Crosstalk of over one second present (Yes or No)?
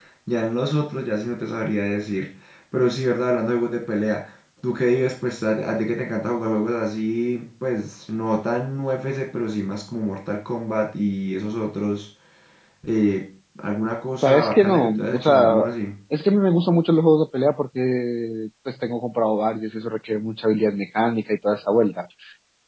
Yes